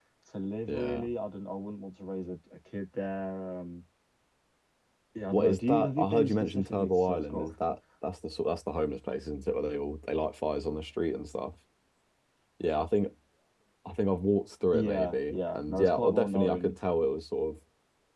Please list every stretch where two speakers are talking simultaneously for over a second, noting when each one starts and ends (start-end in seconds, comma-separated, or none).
5.3-7.5, 14.7-16.7